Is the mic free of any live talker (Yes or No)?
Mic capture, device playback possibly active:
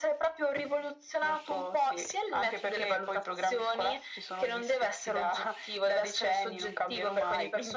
Yes